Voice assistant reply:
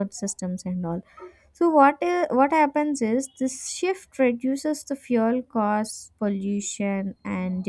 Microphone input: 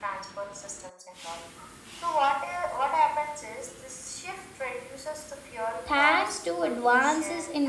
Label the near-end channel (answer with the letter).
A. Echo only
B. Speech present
B